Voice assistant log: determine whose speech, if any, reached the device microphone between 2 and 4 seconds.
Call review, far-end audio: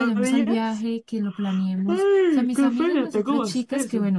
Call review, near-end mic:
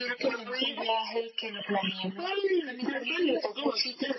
echo only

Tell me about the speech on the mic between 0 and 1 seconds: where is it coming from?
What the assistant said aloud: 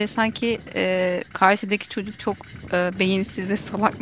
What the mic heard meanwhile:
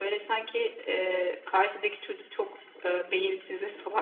echo only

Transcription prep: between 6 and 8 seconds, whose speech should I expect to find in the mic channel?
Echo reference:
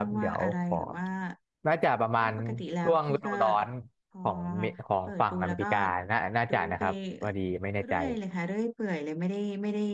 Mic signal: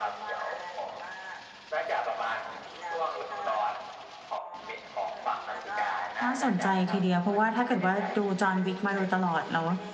both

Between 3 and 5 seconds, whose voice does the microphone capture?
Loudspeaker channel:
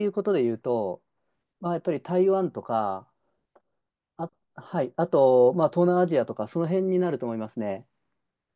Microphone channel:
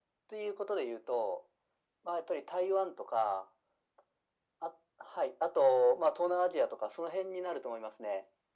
echo only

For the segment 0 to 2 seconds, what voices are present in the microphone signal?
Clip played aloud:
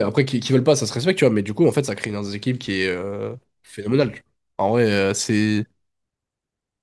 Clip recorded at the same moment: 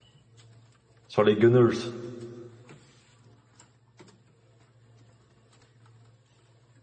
user only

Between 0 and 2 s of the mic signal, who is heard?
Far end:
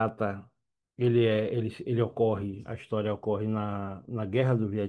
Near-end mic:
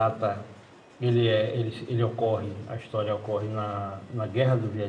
echo only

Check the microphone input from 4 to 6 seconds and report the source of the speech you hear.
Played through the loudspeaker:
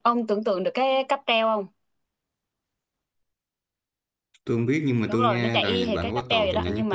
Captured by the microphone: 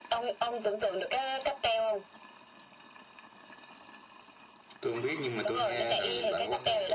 echo only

